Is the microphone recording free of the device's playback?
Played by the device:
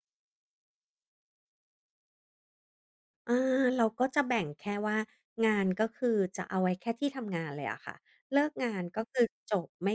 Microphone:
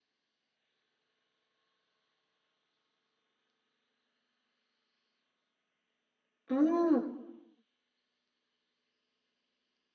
Yes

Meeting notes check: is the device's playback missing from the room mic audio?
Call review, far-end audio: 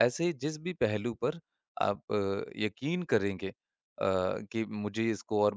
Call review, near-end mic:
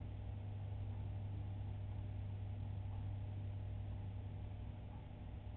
Yes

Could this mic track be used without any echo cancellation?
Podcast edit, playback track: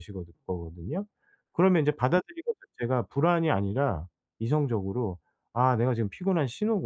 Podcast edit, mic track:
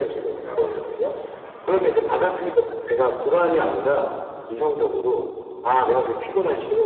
No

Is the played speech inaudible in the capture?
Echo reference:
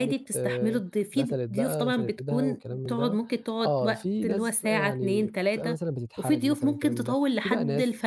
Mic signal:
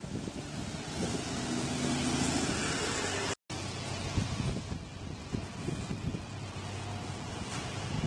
Yes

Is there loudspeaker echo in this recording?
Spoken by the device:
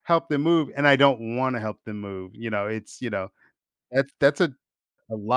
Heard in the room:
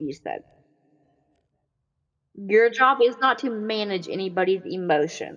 No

